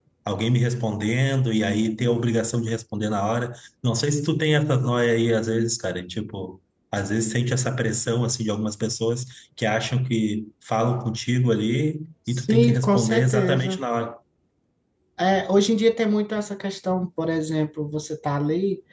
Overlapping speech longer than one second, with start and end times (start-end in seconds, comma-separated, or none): 12.3-13.8